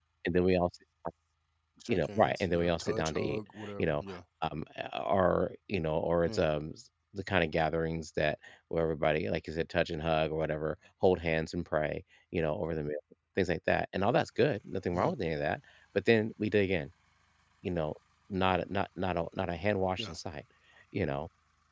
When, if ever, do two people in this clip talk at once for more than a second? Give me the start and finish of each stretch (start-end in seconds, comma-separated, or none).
1.9-4.0